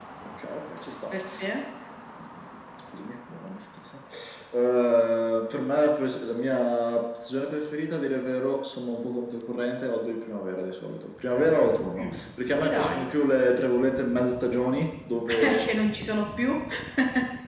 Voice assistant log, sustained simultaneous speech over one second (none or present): none